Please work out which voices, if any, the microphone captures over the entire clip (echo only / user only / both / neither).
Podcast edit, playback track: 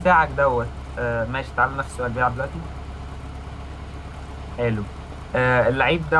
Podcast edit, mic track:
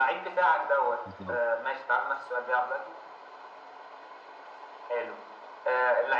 both